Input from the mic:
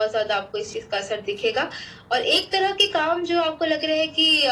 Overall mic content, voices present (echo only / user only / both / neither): echo only